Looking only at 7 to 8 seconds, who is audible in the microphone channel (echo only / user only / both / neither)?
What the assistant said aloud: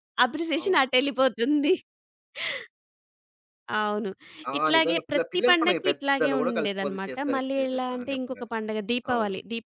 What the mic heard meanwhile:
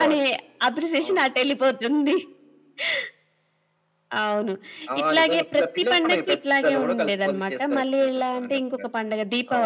echo only